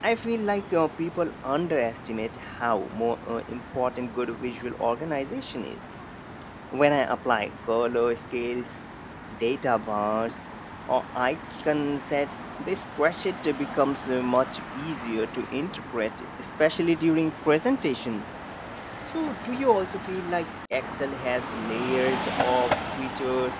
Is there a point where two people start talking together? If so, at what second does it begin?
none

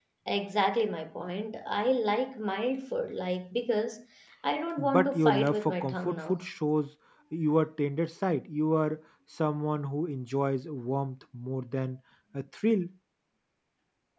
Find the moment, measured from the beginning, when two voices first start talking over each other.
5 s

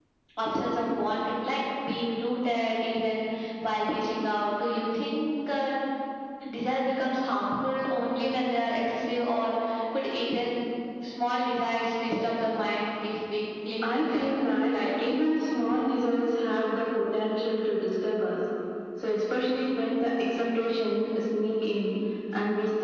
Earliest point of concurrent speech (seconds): 14 s

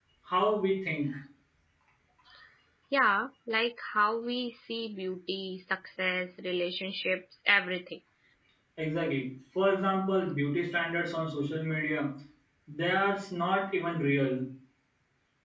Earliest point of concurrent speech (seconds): none

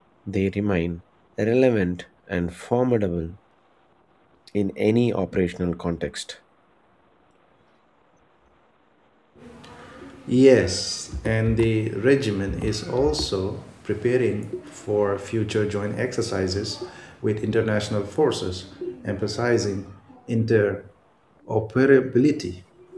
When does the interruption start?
none

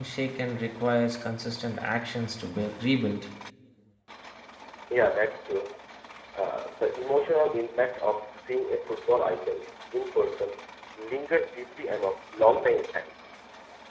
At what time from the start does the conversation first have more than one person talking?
none

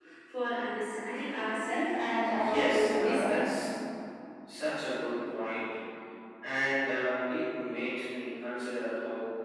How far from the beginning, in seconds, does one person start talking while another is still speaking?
2 s

